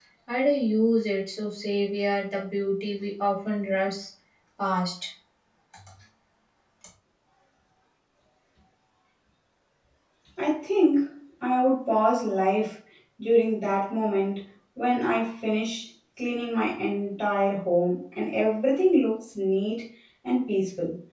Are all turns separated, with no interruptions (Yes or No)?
Yes